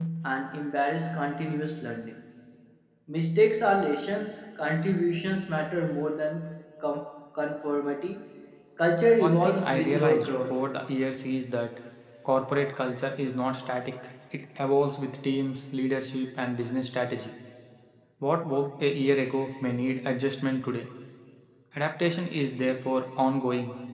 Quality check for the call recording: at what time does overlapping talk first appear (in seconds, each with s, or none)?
9.2 s